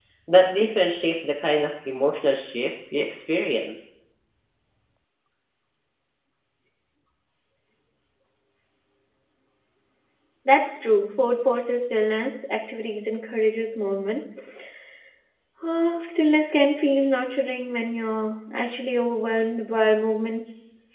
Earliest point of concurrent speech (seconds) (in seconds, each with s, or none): none